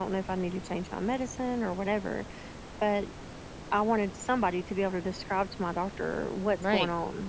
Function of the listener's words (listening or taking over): taking over